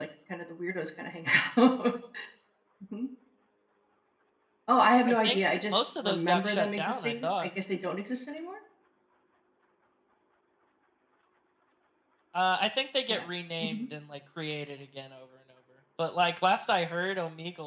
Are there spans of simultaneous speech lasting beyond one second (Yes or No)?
Yes